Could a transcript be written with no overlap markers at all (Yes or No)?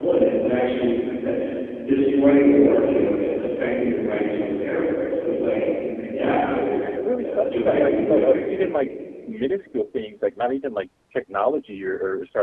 No